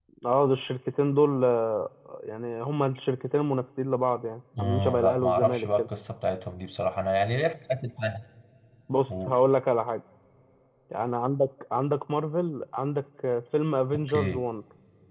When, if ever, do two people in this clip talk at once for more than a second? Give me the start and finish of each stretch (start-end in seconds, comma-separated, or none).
4.6-5.9